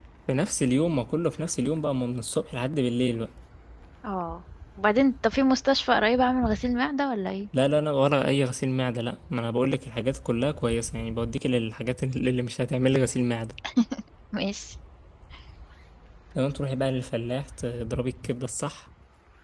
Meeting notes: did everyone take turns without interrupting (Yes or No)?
Yes